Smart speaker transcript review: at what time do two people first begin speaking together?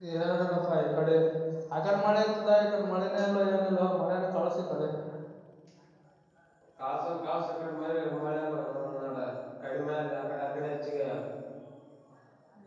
none

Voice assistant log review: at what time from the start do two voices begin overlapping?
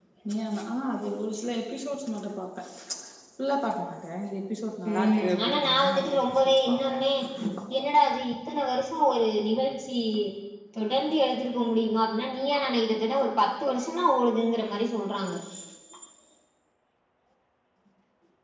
5 s

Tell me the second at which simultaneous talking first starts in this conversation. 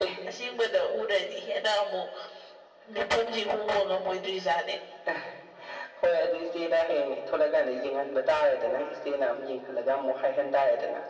none

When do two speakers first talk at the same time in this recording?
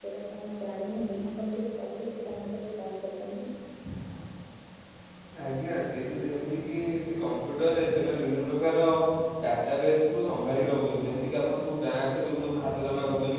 none

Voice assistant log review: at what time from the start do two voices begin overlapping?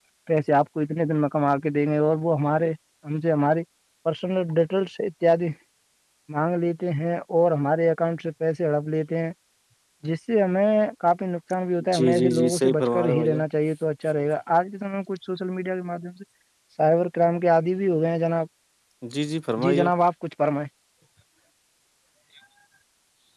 12 s

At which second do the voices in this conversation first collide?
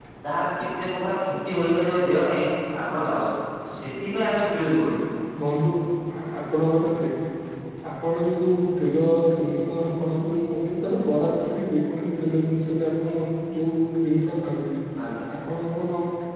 none

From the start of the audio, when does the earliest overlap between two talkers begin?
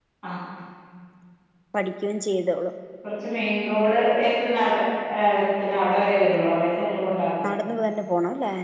none

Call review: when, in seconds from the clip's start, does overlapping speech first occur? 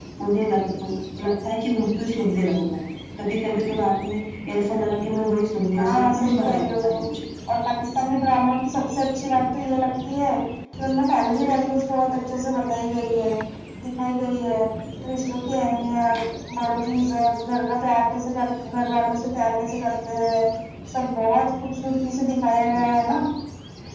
6 s

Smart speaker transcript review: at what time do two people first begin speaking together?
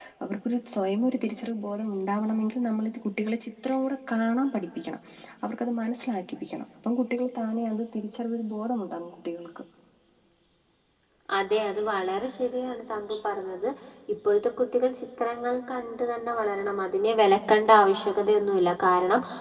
none

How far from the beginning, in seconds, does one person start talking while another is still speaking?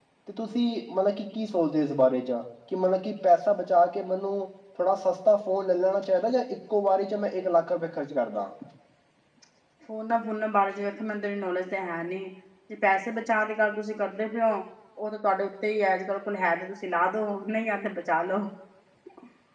none

